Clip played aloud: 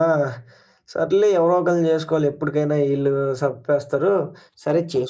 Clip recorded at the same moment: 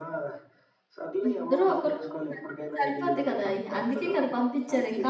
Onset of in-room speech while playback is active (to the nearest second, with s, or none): 1 s